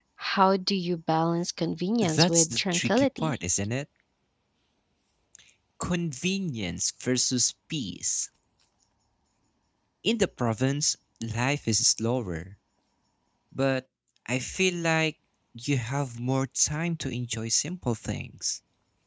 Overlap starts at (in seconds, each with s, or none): 2.0 s